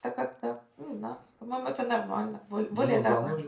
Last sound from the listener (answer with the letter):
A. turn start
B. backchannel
A